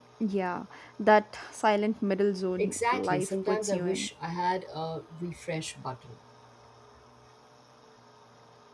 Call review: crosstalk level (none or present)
present